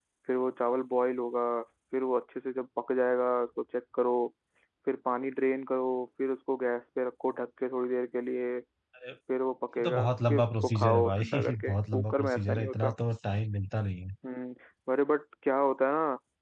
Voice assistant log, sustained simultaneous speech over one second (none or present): present